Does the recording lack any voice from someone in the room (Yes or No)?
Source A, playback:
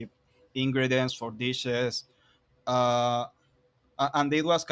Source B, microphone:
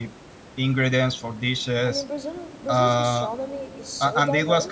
No